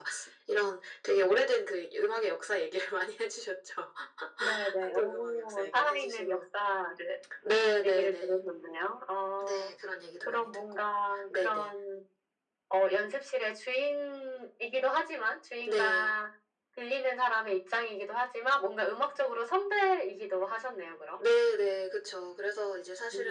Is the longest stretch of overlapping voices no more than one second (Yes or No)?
No